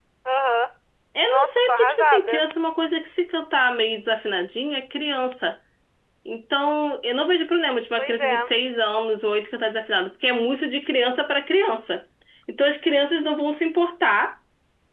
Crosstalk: present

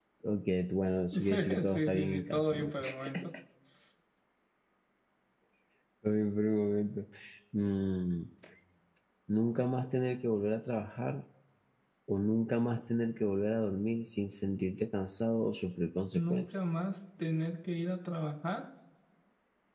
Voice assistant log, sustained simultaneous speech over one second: present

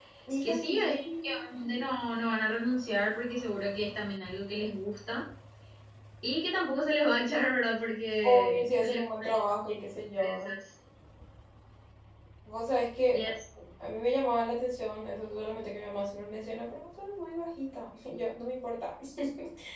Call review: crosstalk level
present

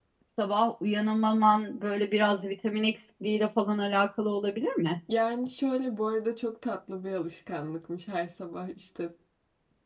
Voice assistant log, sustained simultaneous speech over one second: none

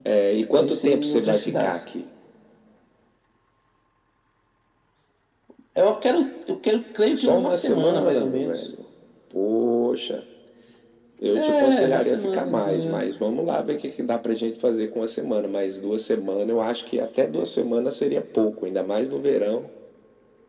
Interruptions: present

